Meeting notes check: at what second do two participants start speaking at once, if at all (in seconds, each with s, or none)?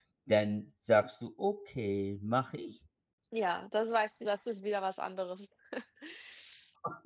none